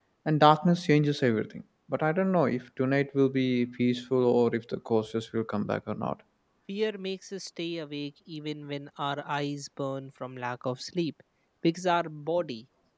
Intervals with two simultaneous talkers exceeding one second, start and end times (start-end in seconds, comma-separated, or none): none